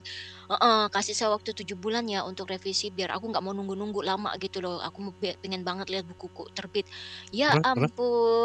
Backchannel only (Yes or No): Yes